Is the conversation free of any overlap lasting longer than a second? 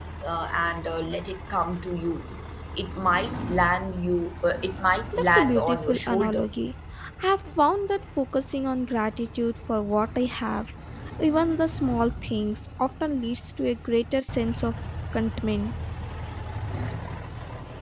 No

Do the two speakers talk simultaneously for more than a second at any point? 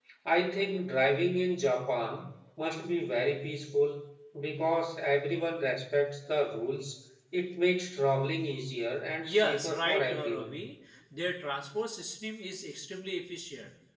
Yes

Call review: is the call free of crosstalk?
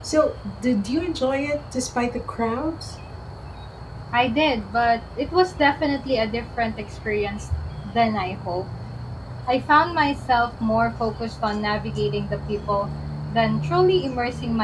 Yes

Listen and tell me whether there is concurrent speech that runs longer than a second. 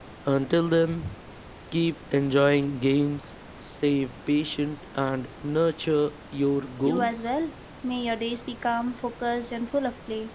No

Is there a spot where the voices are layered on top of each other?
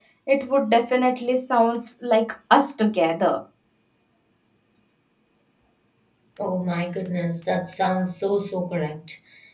No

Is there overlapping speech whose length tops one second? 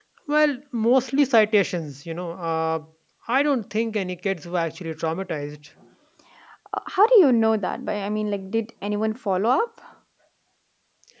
No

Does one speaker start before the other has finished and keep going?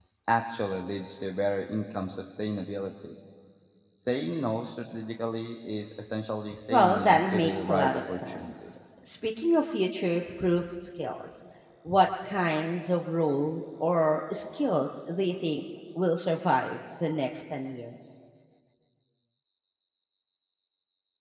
Yes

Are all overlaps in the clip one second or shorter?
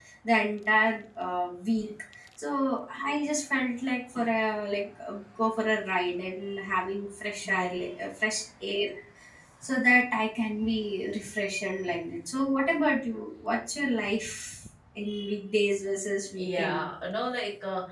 Yes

